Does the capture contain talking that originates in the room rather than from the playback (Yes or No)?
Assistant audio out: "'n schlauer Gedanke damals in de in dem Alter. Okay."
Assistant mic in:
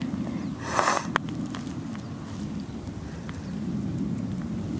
No